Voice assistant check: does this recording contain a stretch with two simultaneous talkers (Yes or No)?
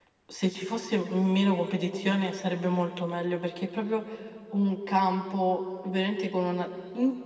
No